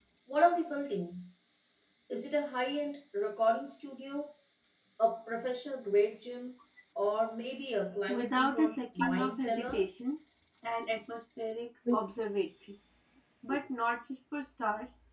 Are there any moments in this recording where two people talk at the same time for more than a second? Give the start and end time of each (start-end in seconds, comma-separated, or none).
8.1-9.8